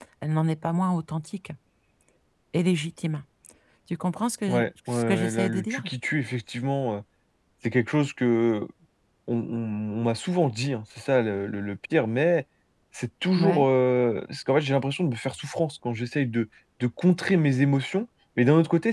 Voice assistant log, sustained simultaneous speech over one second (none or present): present